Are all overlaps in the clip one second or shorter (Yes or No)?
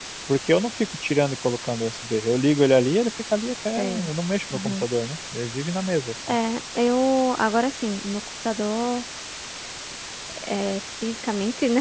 Yes